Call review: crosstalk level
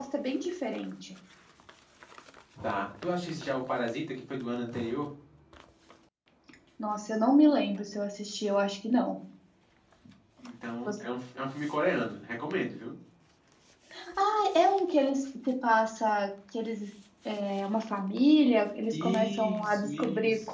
present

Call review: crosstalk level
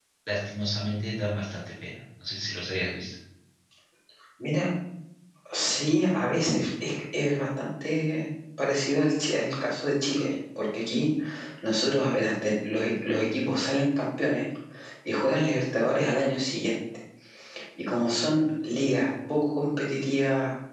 none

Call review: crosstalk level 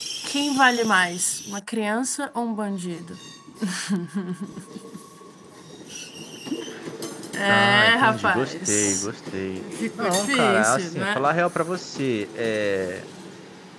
present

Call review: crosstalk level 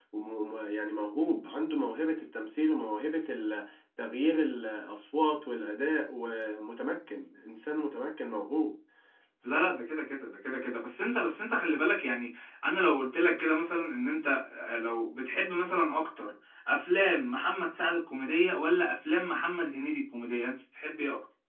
none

